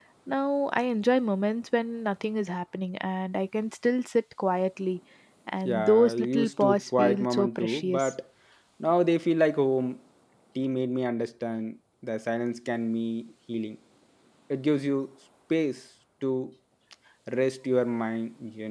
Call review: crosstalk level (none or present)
present